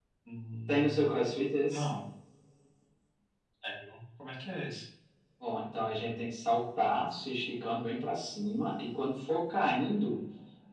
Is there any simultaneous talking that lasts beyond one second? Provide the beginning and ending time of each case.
none

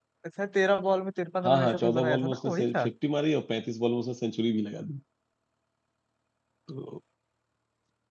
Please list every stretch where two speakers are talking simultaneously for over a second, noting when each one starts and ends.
1.4-2.9

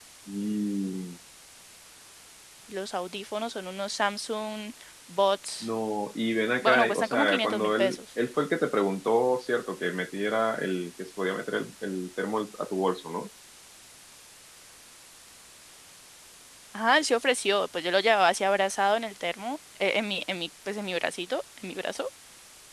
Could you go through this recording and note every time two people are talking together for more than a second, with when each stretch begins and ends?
6.6-8.0

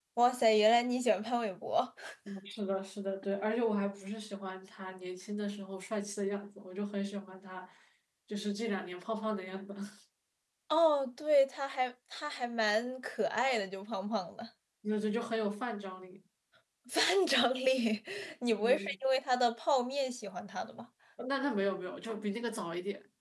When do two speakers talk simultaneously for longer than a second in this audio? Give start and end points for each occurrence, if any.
none

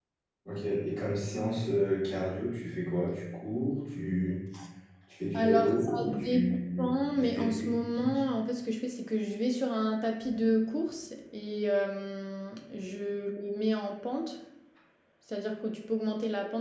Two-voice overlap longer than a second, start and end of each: 5.3-8.1

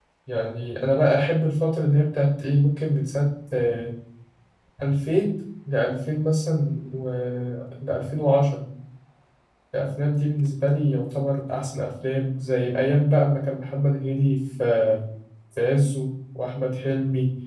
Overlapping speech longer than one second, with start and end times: none

